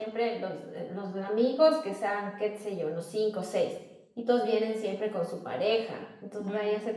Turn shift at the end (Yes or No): No